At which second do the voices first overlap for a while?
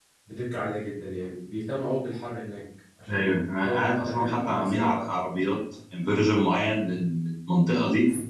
3 s

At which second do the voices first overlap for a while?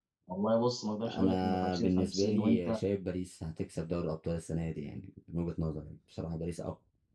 1 s

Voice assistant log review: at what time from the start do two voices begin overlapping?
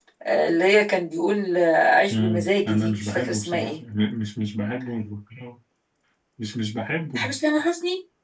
2 s

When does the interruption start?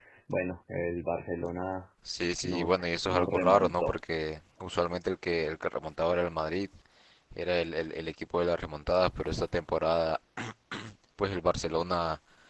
2 s

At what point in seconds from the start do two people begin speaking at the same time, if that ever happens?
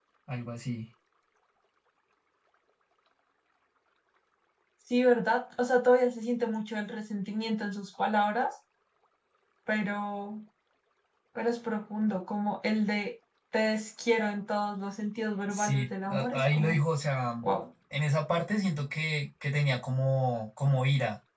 15 s

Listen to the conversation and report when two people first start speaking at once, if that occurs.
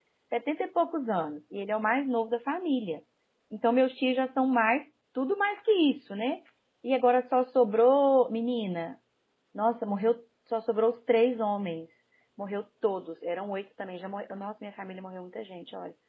none

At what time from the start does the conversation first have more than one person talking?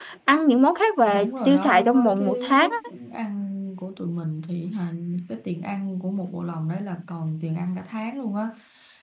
1 s

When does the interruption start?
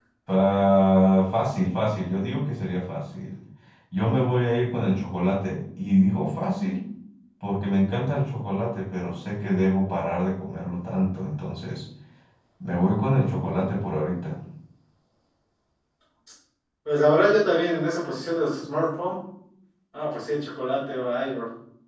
none

